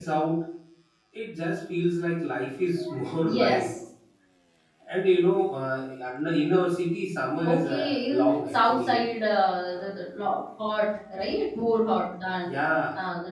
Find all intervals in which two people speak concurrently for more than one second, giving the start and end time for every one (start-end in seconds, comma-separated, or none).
7.5-9.0